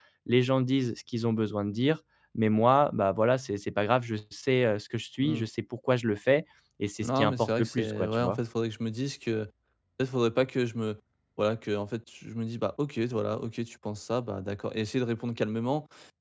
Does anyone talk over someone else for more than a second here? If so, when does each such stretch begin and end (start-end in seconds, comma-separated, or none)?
7.0-8.4